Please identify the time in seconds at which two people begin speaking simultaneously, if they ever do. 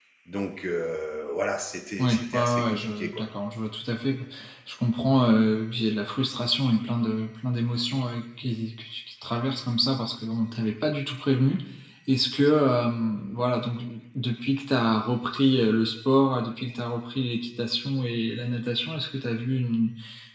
2 s

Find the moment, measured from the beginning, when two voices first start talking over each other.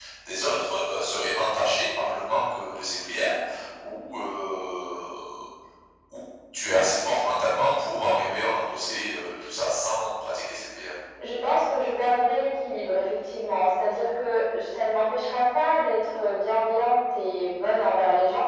none

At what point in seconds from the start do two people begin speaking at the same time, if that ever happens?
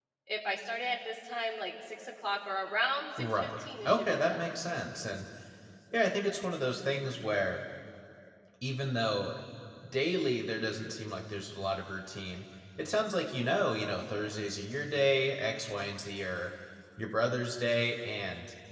3 s

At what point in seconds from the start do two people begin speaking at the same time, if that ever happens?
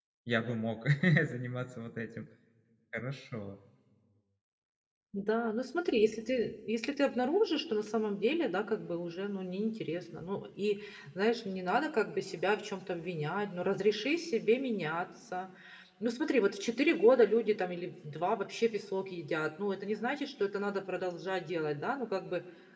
none

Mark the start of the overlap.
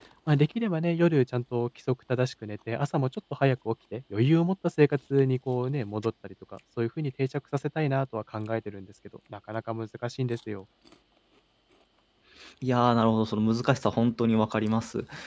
none

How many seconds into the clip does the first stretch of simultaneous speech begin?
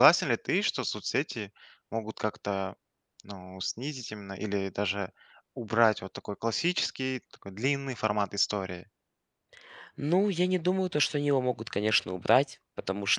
none

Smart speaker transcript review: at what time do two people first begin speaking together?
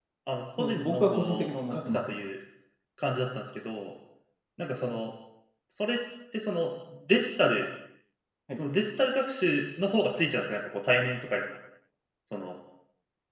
1 s

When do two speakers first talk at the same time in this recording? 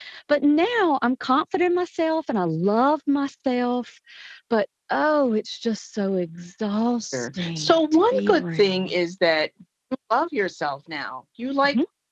7 s

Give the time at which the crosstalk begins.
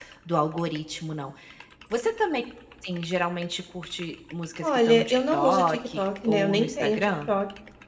5 s

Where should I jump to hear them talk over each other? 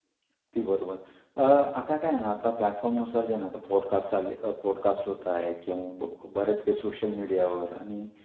none

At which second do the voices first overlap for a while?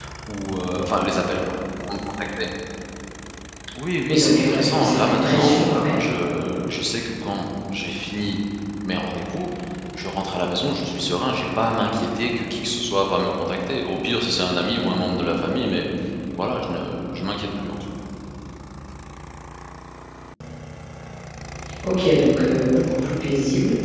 4 s

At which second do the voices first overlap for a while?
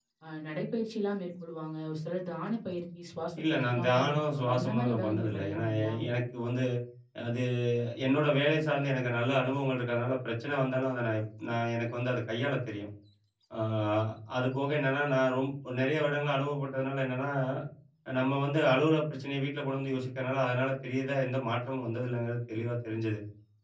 3 s

